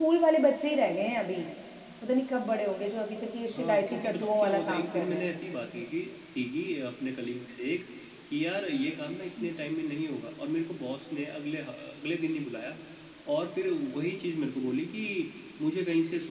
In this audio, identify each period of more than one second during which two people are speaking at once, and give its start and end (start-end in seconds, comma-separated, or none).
3.5-5.4